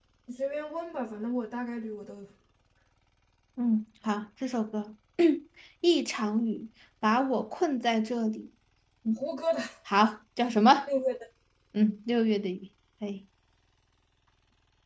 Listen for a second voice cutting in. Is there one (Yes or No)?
No